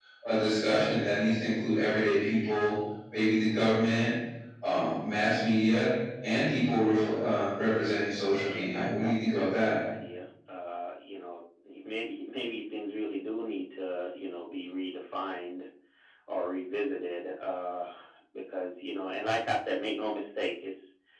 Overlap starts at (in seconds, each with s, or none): 8.5 s